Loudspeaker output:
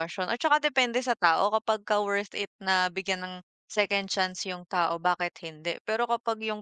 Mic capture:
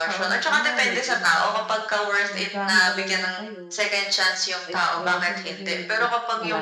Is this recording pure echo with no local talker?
No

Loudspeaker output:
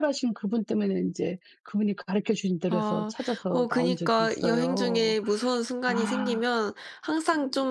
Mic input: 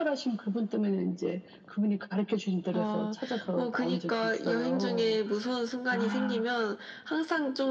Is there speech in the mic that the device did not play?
No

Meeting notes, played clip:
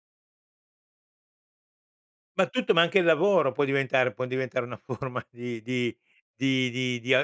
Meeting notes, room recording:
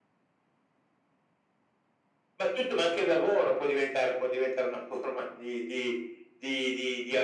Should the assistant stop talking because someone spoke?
No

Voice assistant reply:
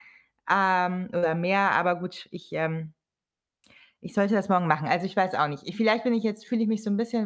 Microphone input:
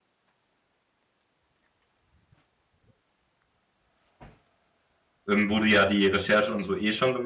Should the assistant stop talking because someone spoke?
Yes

